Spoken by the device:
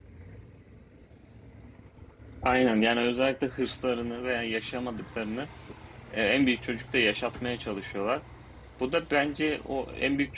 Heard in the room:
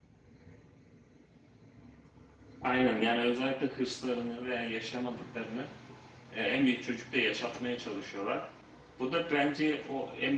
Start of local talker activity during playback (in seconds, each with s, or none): none